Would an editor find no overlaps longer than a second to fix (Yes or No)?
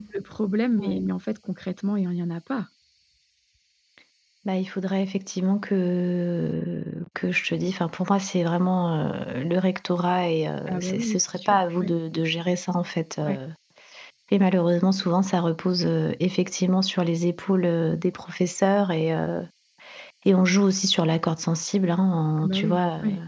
No